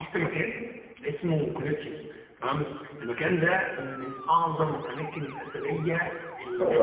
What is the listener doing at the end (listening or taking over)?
listening